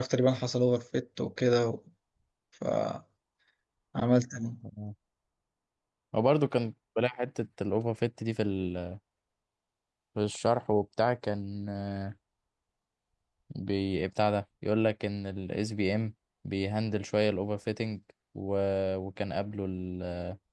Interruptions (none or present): none